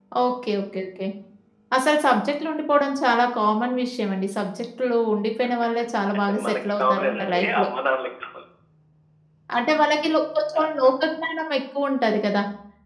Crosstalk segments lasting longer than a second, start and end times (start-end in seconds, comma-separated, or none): 6.2-7.7